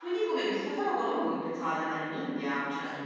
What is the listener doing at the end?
taking over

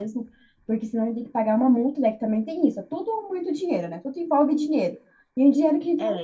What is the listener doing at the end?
taking over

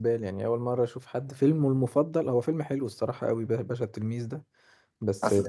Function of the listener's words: listening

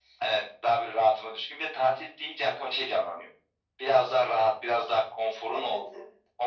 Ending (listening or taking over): listening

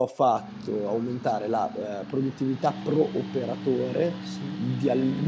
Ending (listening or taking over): listening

